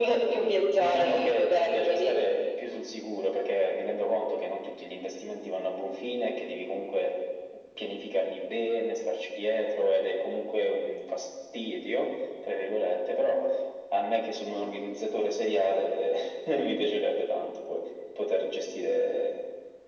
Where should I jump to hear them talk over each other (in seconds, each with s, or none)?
0.6 s